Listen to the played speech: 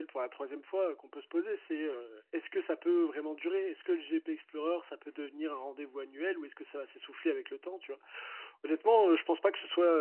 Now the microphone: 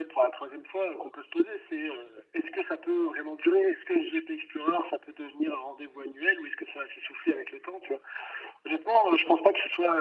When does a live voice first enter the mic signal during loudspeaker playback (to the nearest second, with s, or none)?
none